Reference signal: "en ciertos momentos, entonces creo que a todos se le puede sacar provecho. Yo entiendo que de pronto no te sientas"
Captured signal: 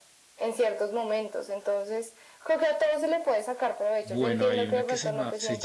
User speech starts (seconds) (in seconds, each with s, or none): 4.0 s